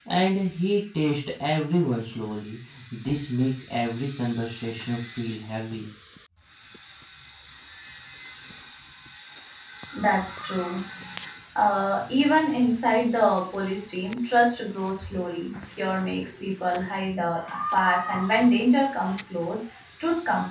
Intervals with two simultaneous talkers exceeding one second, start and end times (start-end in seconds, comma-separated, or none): none